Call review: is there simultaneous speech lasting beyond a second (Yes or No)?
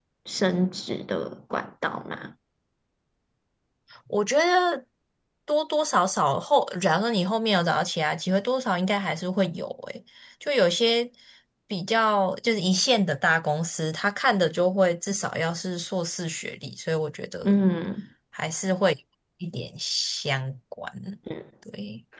No